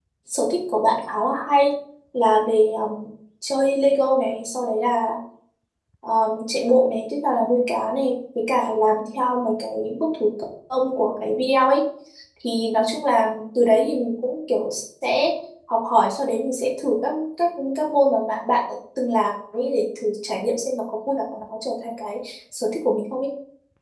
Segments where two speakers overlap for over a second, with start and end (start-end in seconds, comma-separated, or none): none